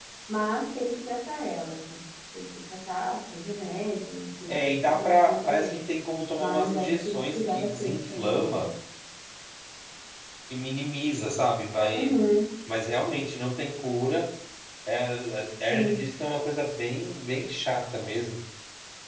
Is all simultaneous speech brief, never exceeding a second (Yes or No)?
No